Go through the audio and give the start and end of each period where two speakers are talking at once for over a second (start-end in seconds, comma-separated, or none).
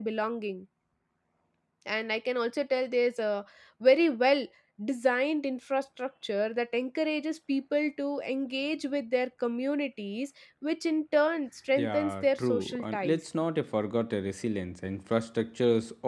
11.8-13.2